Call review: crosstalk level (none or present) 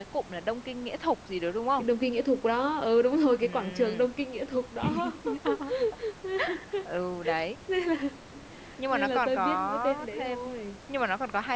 present